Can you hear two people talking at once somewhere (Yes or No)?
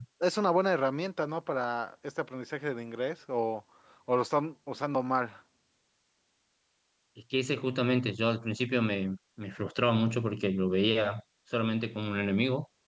No